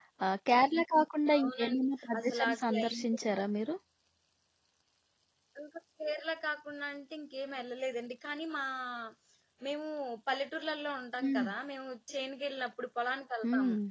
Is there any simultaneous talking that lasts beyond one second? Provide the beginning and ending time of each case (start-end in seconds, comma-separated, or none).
1.4-2.9